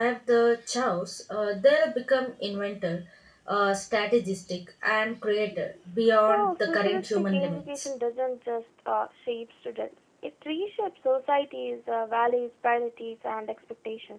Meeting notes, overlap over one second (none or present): present